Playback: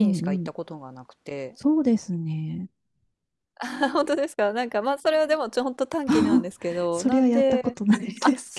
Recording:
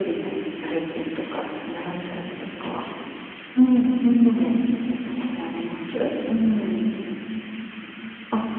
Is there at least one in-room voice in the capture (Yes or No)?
Yes